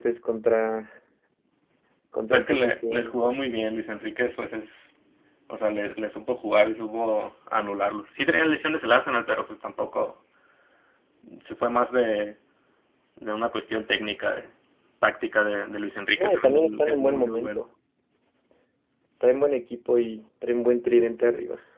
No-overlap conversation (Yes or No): No